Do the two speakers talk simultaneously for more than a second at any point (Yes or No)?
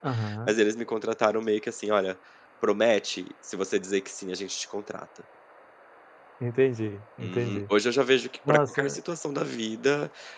No